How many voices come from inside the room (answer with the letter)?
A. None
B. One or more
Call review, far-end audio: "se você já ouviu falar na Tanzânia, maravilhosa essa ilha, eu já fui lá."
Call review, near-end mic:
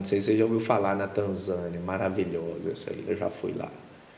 A